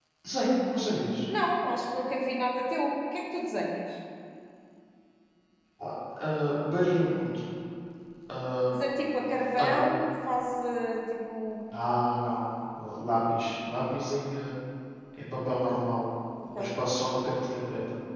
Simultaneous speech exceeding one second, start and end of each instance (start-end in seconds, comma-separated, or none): none